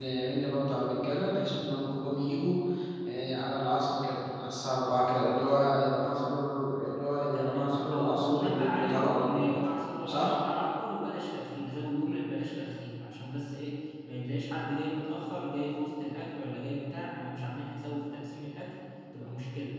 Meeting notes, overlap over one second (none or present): present